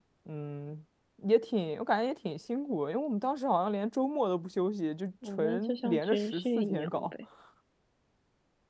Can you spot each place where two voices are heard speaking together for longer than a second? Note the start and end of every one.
5.4-7.1

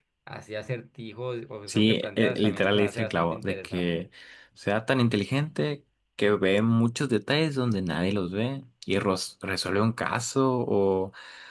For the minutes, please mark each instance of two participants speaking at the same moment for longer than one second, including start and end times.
1.7-4.0

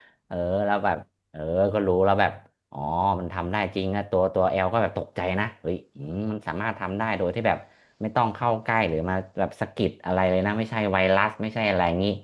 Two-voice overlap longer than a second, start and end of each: none

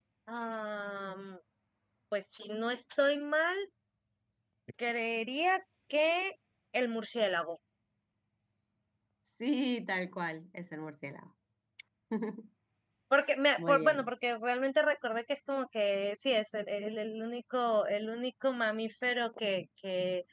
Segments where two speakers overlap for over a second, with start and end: none

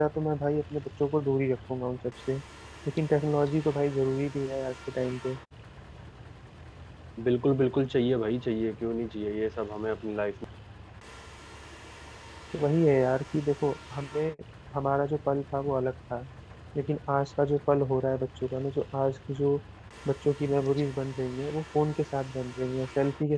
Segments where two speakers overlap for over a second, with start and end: none

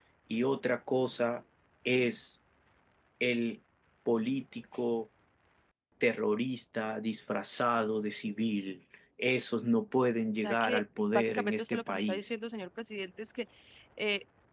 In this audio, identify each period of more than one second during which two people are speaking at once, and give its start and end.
10.4-12.3

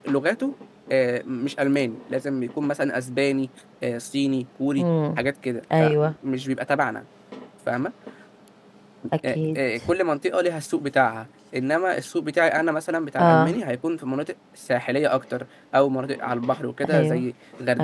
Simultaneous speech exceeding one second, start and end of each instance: none

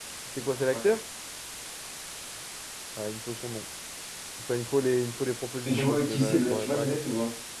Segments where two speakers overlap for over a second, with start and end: 5.7-7.0

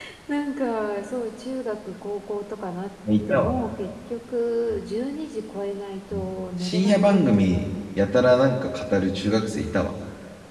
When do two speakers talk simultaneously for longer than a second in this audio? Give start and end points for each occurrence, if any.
6.1-7.7

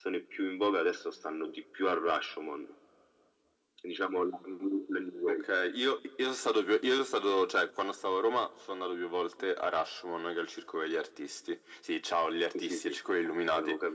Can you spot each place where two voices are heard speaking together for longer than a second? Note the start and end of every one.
none

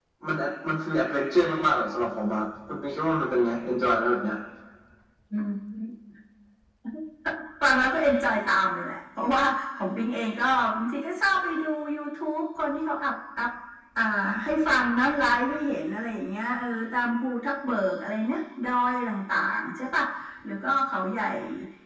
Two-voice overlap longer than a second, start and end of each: none

